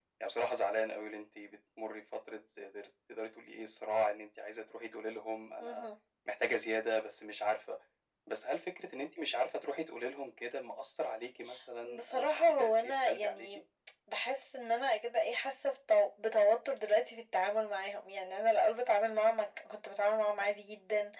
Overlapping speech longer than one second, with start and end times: 11.8-13.5

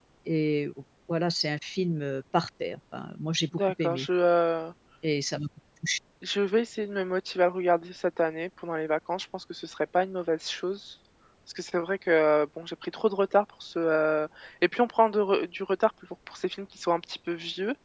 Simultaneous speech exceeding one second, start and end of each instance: none

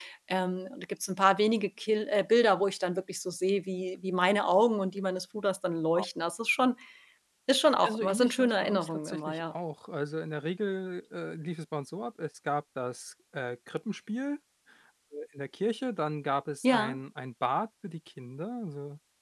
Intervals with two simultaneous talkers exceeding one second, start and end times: 7.8-9.5

